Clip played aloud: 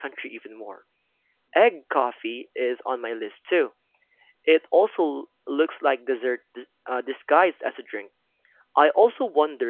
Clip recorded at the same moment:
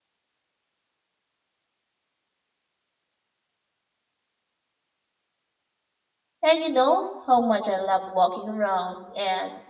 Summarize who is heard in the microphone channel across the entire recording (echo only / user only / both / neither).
user only